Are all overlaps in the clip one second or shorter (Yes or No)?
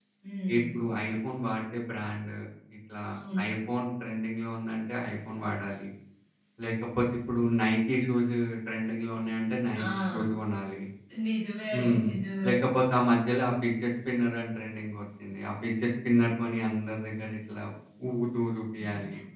Yes